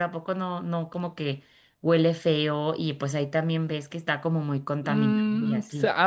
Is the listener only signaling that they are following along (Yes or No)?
No